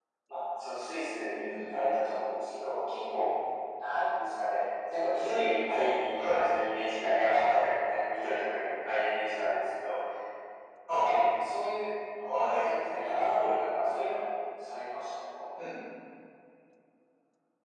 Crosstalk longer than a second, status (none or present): none